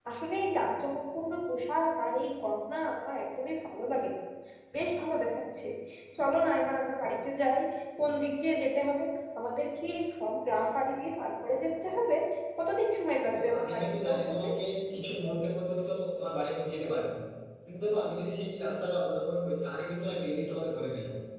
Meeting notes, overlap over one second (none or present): present